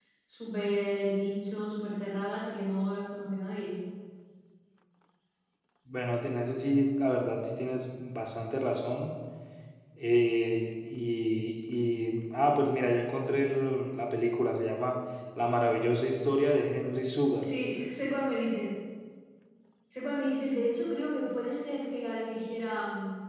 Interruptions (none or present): none